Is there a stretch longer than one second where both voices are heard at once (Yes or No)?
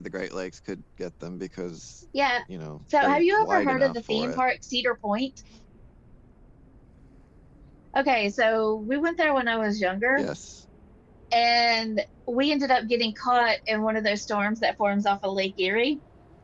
Yes